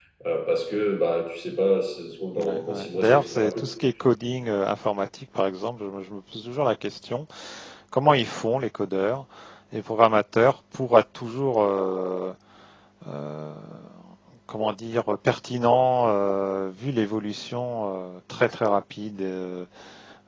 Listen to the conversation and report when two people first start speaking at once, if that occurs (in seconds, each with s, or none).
2.4 s